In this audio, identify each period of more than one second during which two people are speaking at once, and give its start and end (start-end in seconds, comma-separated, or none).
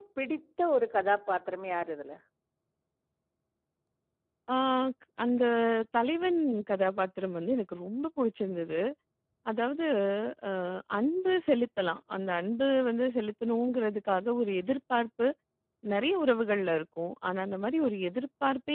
none